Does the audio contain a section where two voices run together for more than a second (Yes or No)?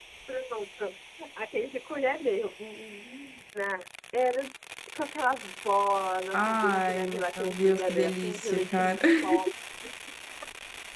Yes